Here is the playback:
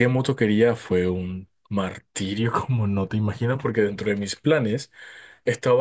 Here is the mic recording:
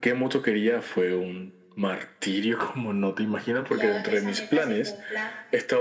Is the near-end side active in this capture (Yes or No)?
Yes